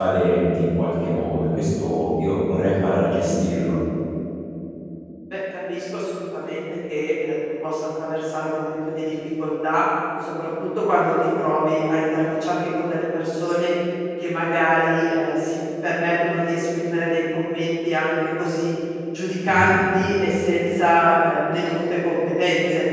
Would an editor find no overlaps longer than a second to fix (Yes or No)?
Yes